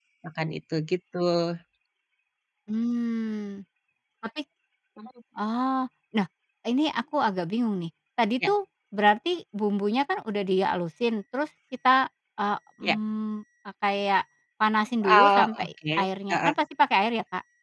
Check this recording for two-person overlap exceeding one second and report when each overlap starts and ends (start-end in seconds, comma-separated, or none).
15.0-16.5